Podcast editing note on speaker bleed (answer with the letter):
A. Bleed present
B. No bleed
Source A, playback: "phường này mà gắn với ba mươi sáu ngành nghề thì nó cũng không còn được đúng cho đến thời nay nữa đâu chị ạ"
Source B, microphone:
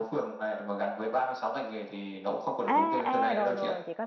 A